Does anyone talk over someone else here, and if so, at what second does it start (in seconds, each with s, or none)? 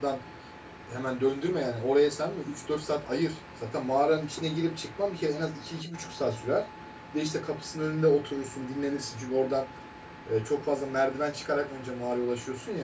none